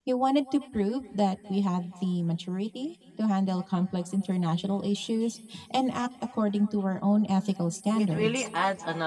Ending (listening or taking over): taking over